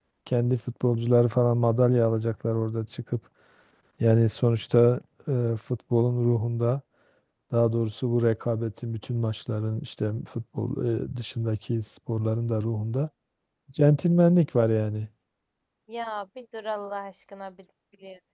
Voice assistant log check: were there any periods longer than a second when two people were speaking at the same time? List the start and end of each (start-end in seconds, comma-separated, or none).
none